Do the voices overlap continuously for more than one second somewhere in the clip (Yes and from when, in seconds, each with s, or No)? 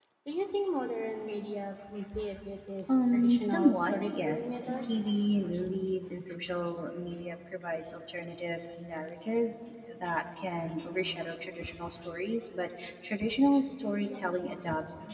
Yes, from 2.9 s